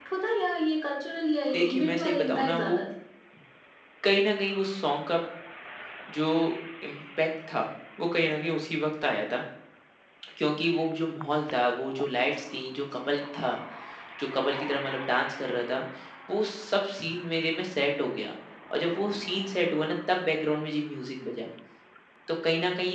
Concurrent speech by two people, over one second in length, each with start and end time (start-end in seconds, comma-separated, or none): 1.5-2.8